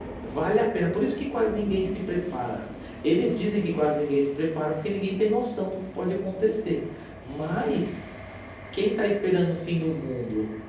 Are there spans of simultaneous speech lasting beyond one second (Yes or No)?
No